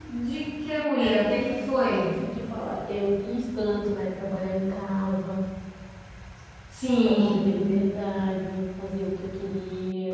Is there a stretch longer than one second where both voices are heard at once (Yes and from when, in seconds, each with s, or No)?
No